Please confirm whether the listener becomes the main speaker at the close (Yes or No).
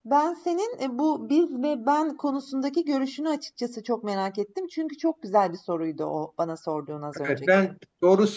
Yes